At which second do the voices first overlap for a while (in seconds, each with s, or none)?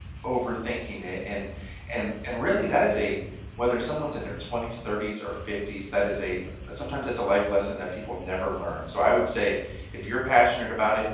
none